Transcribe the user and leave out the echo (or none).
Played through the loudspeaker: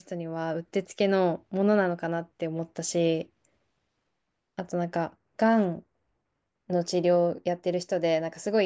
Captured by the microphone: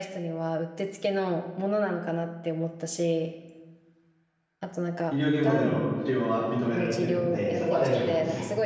医療現場での使用は認められているので、そこは大丈夫なんですよ。